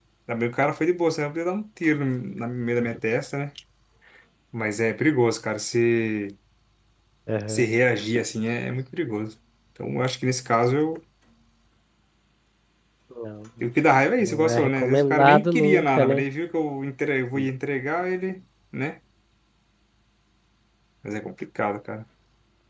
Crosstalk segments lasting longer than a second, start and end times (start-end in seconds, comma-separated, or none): 14.2-16.2